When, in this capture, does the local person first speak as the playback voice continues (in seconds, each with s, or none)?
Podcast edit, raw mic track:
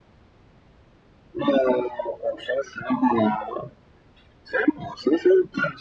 none